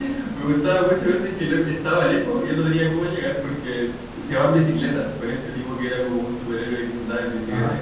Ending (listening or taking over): taking over